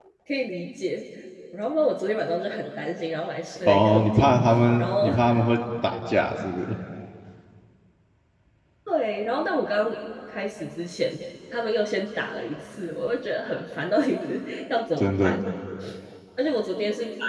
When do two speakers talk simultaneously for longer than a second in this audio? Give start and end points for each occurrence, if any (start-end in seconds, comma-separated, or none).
3.7-5.1